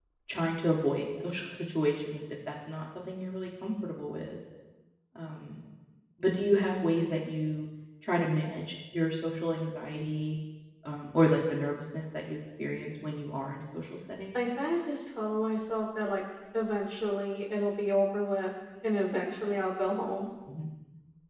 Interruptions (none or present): none